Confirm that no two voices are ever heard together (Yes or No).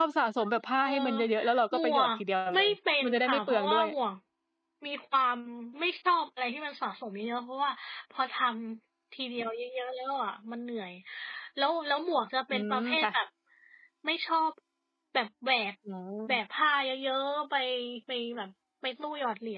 No